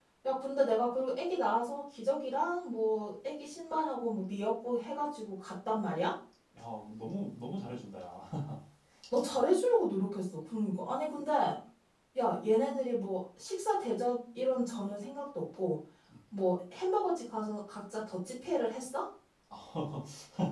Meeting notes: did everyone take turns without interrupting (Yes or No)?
Yes